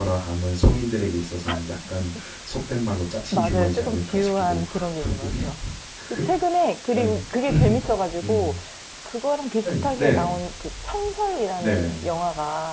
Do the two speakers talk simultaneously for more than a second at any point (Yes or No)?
Yes